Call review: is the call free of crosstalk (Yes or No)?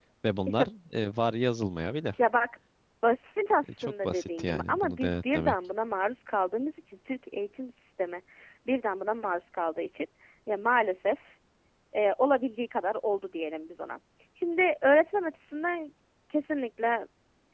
No